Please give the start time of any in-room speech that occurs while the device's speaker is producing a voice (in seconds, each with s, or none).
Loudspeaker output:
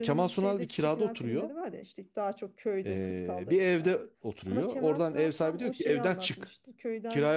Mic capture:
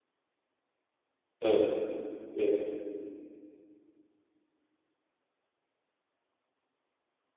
1.4 s